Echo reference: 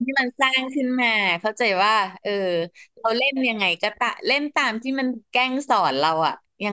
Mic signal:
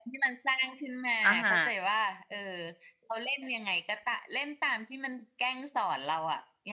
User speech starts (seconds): 1.2 s

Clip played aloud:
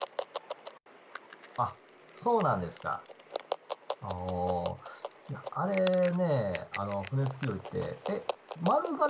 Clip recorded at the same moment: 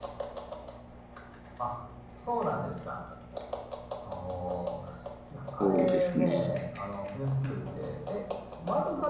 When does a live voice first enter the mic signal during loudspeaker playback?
5.6 s

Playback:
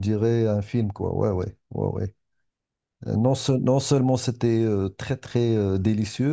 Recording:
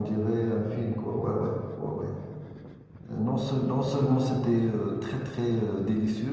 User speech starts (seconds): none

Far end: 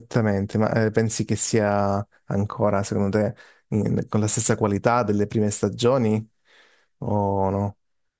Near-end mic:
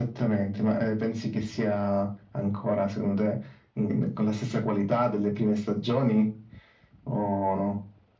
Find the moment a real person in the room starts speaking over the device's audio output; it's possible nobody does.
none

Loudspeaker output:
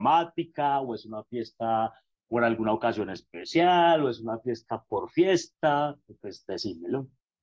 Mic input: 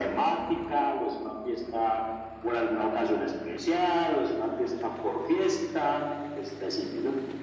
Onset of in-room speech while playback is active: none

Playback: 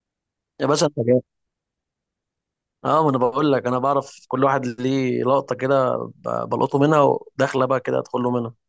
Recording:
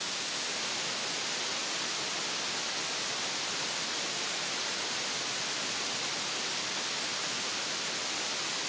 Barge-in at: none

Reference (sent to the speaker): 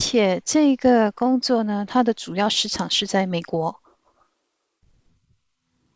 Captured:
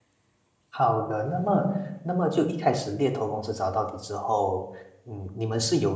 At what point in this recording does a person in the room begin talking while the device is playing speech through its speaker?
0.7 s

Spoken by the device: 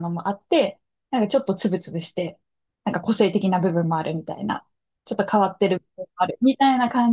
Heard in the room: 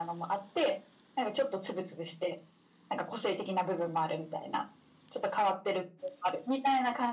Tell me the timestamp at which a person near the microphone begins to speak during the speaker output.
none

